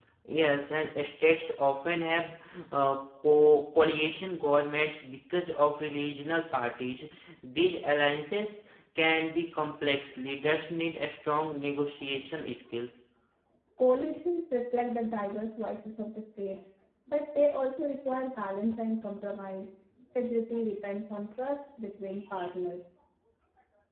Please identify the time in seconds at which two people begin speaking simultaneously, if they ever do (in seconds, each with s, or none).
none